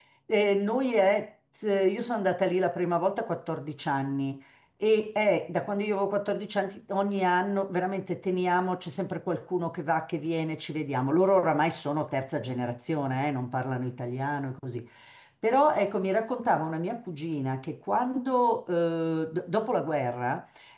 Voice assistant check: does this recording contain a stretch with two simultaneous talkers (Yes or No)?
No